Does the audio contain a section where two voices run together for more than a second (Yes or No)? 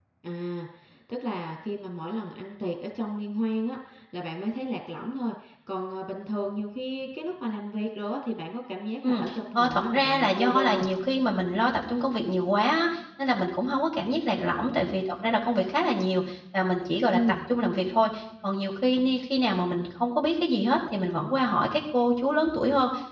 Yes